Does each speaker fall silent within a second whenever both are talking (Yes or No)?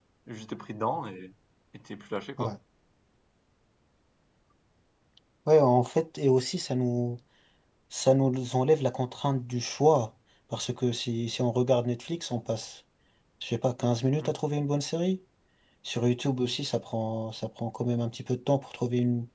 Yes